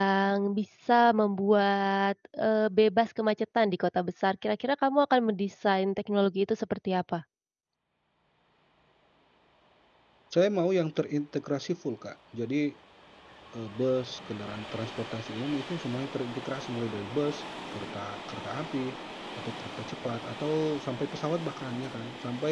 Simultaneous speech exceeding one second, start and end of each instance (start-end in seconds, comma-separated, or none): none